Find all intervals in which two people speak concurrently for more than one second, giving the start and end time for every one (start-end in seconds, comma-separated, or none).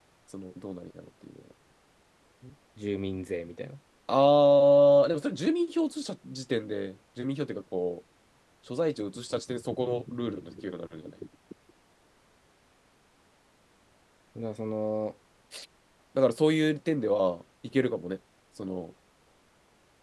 none